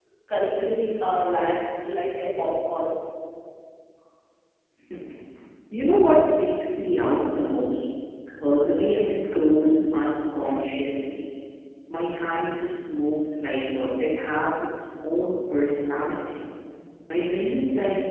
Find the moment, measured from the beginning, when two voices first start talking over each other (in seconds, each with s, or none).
none